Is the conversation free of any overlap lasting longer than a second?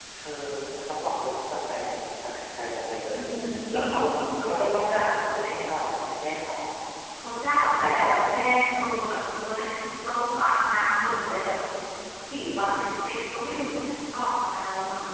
Yes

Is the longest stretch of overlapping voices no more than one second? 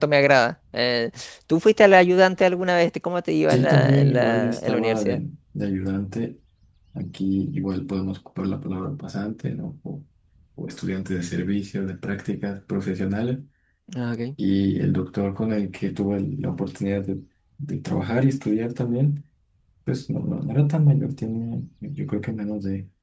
No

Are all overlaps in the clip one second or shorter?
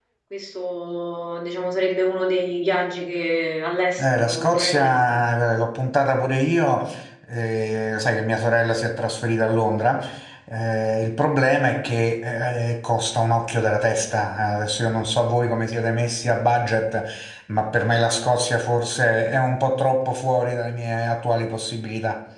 No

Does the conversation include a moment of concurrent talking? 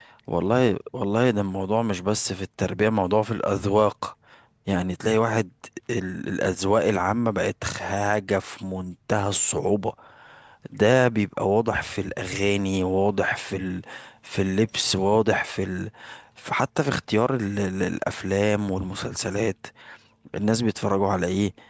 No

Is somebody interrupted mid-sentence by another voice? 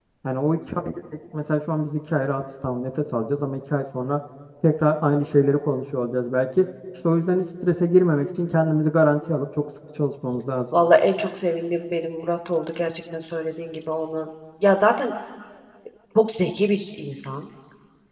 No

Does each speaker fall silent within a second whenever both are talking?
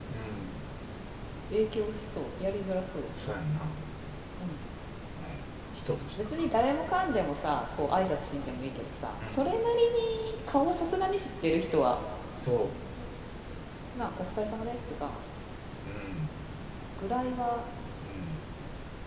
Yes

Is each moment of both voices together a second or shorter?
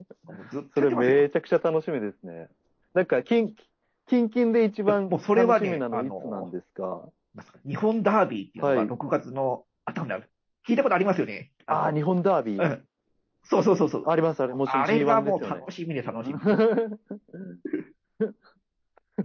No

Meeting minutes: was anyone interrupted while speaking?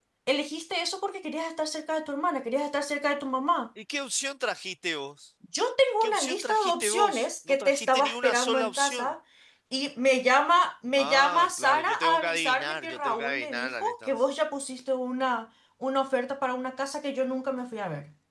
Yes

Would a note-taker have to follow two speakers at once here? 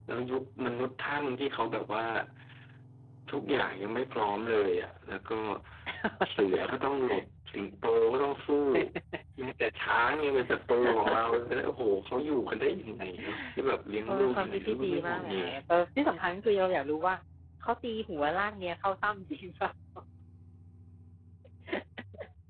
Yes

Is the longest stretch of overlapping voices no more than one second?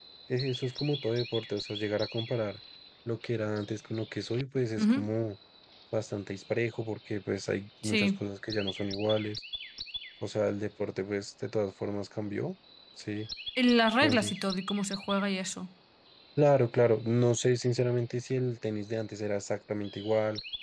Yes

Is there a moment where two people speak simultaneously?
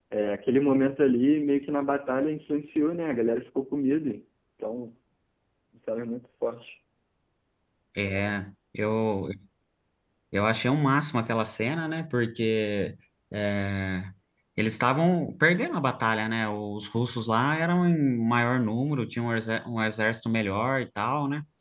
No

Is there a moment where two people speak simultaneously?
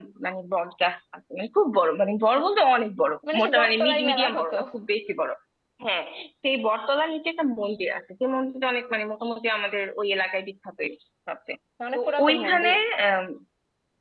Yes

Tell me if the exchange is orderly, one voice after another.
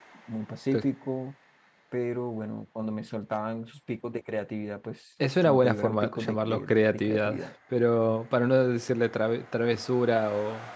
No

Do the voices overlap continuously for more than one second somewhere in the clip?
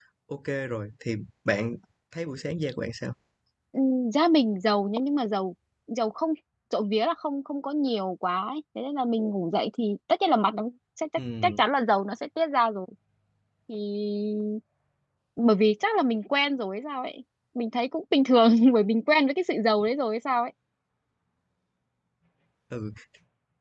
No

